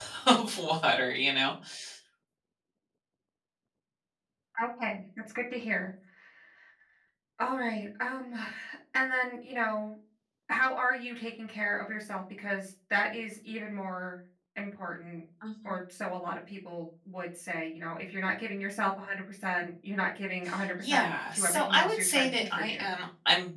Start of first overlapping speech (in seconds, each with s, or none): 20.8 s